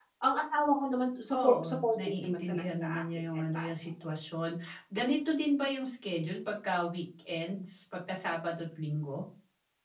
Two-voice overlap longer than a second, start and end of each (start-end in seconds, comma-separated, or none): 1.4-3.7